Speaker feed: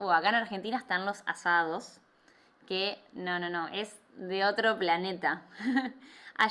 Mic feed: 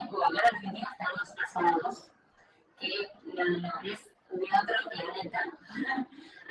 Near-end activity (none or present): none